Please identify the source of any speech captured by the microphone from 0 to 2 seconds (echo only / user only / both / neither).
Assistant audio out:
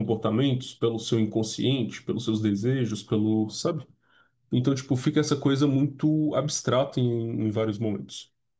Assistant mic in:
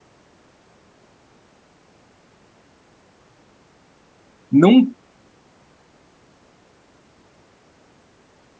neither